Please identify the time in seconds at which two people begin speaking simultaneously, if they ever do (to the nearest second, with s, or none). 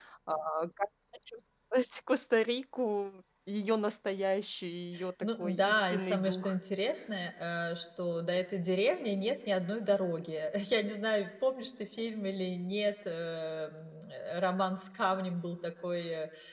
5 s